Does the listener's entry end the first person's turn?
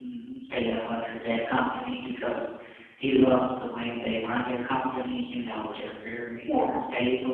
No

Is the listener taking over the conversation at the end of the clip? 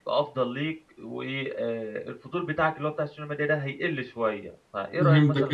Yes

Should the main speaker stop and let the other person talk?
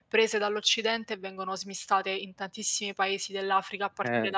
Yes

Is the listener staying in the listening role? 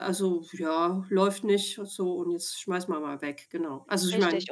No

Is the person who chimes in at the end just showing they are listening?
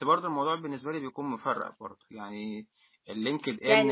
No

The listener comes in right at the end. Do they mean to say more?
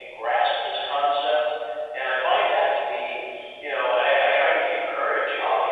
Yes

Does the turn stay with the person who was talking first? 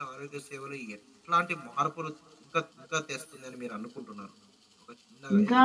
No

